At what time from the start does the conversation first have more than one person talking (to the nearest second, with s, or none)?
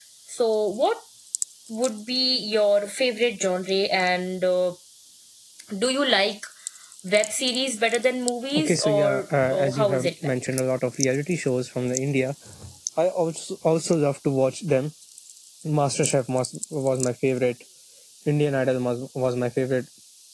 9 s